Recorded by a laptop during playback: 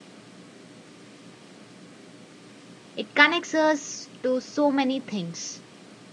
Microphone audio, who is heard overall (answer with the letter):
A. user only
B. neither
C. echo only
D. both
A